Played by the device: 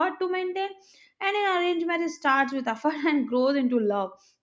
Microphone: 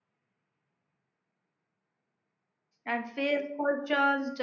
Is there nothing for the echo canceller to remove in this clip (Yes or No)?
Yes